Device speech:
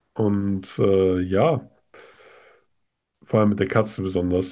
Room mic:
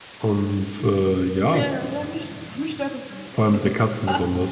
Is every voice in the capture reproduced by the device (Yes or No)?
No